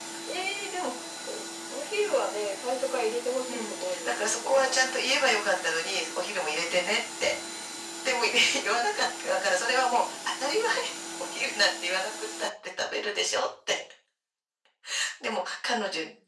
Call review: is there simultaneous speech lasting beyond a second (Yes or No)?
Yes